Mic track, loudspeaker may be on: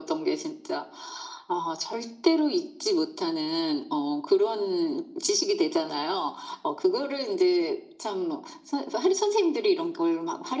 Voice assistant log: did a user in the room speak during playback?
No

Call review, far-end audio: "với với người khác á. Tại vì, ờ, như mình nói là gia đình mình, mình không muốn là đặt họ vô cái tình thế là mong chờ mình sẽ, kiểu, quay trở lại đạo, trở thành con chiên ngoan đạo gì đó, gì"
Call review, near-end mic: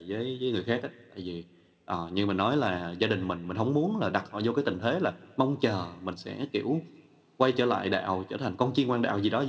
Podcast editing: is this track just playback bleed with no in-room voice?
Yes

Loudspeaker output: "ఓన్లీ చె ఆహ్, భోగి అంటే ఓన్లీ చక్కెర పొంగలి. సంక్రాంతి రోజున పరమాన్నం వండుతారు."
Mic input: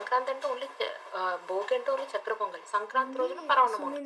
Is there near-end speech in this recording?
Yes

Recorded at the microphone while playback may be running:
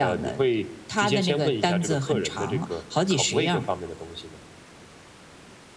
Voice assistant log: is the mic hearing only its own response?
Yes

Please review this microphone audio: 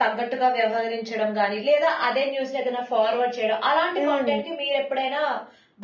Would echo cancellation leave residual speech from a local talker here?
Yes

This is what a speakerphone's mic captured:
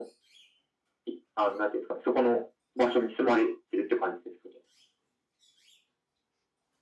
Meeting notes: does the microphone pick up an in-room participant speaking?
No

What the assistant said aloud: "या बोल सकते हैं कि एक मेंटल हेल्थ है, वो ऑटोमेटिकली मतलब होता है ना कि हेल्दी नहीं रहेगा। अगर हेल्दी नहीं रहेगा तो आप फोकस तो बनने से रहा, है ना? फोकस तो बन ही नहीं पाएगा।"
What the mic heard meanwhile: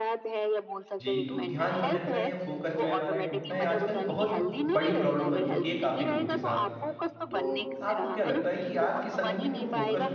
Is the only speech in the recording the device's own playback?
No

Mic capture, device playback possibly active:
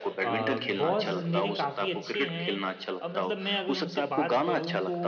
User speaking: Yes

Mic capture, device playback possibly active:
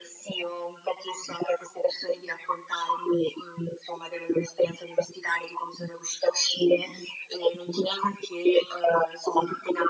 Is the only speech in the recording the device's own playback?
Yes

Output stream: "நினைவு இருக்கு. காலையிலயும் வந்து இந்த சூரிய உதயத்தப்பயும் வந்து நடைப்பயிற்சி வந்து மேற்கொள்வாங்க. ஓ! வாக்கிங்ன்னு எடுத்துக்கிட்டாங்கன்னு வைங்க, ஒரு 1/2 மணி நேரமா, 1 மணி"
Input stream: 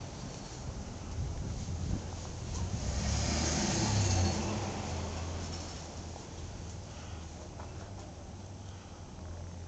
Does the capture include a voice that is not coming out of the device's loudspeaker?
No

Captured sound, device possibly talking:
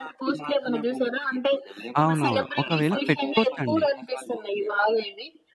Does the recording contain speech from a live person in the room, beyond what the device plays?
Yes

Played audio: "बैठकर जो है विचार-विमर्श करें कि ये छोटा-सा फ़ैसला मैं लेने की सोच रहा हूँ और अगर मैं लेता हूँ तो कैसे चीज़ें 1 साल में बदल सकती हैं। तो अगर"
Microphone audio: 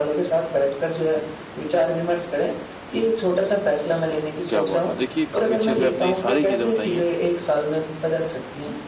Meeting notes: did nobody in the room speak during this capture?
No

